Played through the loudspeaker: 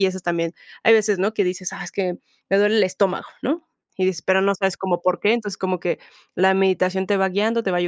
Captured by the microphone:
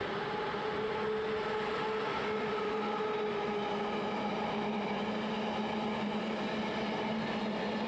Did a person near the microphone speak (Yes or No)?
No